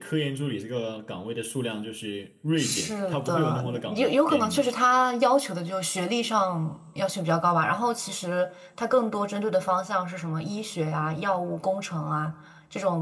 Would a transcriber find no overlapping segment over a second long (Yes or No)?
No